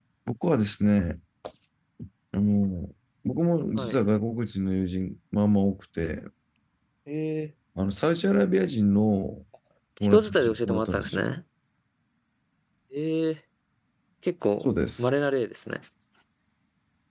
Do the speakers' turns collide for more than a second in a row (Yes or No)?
Yes